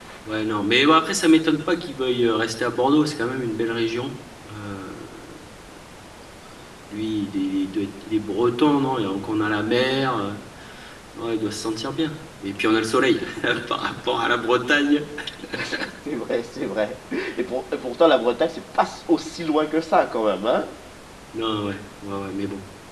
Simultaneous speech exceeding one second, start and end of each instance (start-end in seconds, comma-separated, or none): none